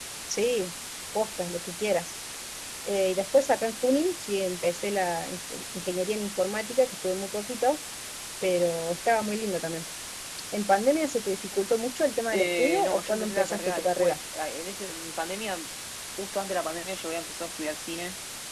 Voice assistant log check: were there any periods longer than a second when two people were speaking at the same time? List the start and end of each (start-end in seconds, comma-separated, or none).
12.3-14.2